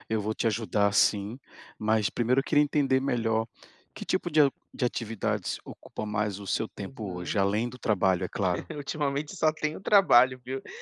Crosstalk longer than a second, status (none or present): none